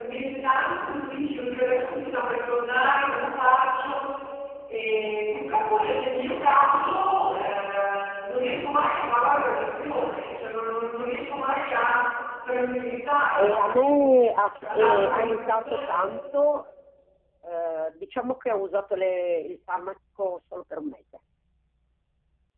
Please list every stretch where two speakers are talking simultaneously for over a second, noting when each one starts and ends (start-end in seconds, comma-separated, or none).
14.8-16.1